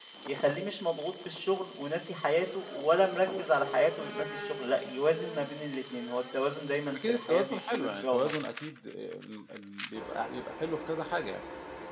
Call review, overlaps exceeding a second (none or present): present